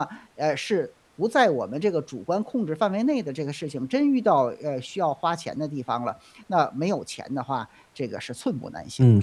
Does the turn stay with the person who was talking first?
No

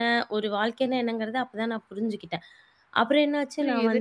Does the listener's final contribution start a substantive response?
Yes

